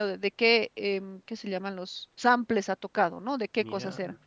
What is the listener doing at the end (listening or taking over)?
listening